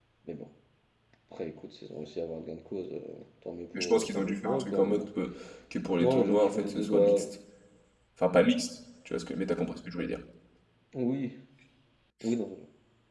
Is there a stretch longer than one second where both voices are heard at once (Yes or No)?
Yes